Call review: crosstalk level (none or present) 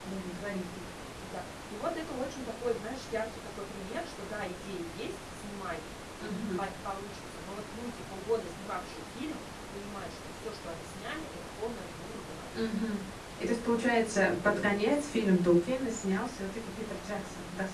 none